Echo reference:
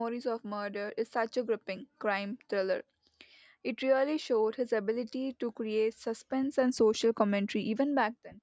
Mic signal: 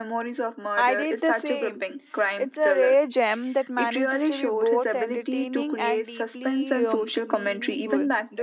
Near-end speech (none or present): present